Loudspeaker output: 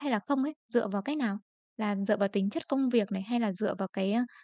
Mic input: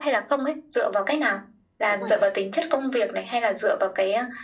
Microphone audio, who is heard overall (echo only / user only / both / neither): both